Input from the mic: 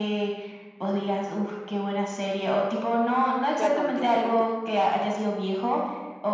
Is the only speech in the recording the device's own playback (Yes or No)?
No